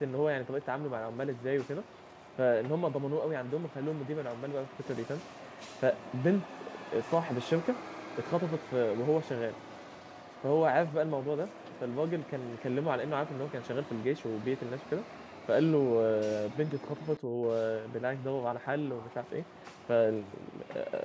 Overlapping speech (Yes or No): No